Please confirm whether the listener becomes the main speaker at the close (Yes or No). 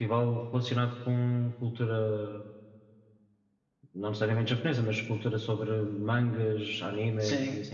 Yes